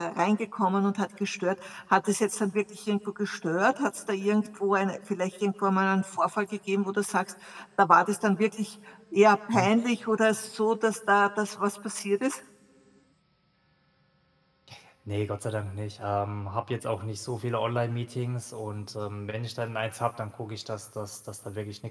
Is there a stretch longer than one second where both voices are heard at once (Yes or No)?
No